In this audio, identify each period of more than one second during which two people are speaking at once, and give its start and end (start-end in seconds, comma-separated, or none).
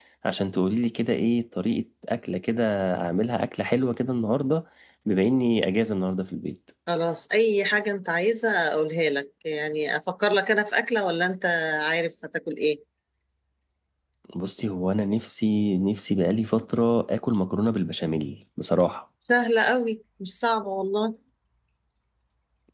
none